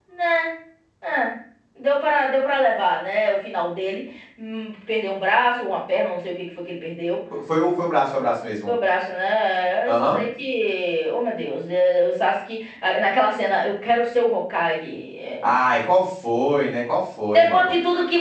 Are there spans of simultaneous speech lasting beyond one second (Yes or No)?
No